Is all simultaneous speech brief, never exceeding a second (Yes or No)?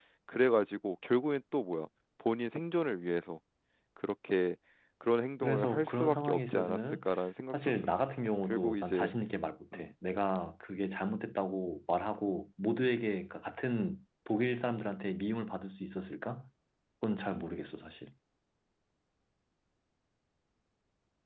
No